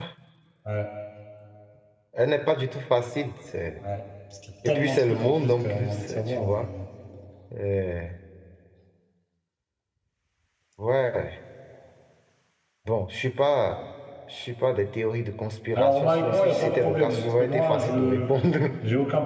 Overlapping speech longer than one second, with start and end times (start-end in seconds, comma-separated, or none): 4.7-6.7, 15.8-18.3